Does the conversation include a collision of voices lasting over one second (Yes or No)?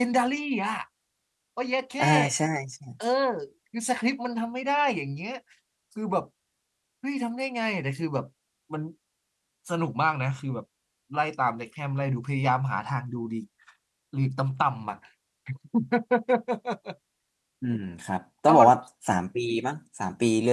No